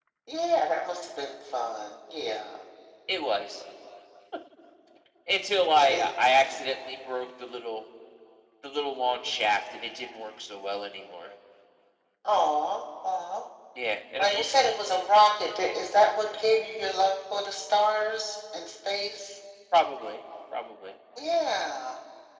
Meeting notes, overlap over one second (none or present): none